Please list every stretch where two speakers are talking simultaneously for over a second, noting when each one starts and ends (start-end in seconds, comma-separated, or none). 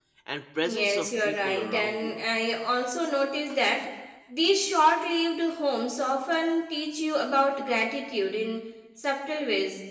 0.6-2.2